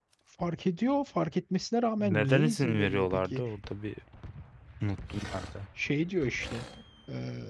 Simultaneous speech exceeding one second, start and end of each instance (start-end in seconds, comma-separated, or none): 2.0-3.4